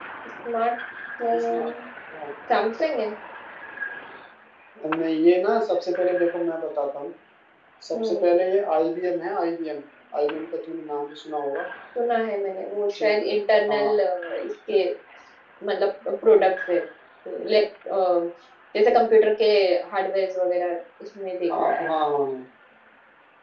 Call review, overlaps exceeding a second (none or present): none